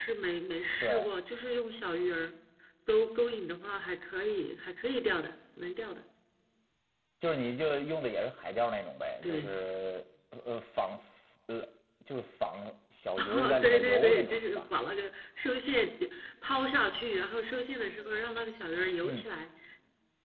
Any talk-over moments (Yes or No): Yes